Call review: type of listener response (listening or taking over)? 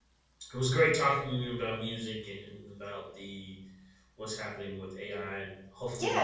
taking over